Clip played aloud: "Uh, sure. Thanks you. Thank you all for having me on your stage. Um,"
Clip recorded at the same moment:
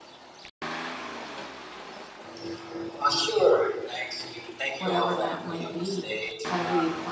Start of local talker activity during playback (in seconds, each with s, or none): 4.8 s